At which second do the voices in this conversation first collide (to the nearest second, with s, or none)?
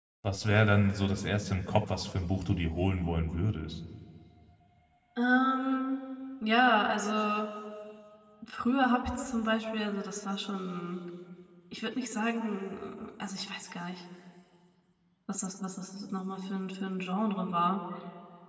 none